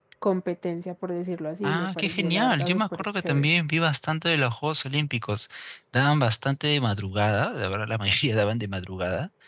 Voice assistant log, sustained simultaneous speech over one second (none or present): present